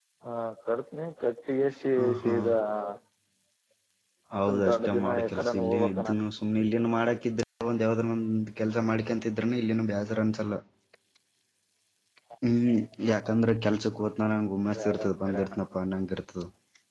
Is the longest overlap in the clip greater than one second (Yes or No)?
Yes